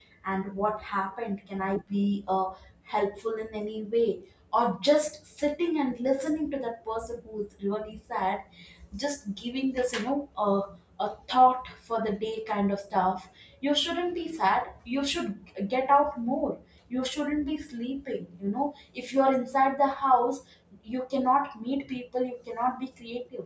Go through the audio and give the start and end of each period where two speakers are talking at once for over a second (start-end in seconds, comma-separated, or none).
none